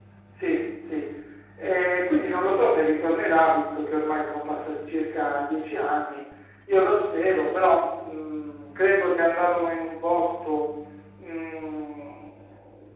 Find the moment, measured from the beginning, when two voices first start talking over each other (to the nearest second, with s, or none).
none